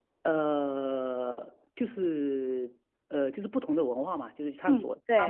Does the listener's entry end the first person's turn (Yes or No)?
No